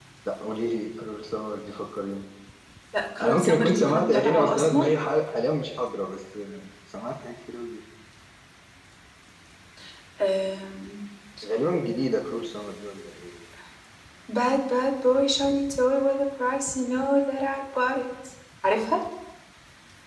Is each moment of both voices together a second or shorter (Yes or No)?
No